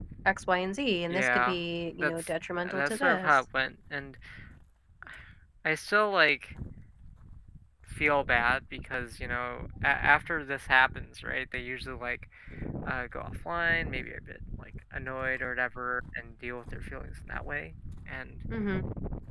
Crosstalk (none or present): present